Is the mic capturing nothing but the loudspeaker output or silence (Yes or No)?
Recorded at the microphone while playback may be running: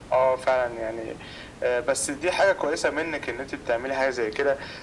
Yes